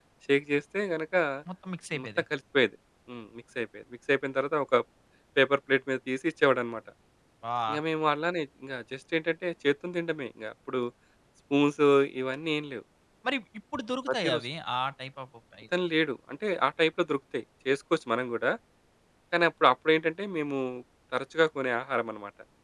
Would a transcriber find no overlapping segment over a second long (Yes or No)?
Yes